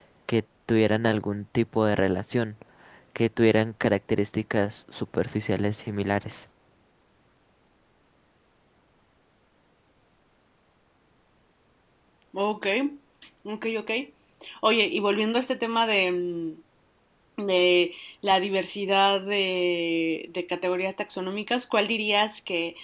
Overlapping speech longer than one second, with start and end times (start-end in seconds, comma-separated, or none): none